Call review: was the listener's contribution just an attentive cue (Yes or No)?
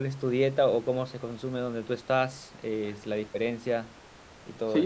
No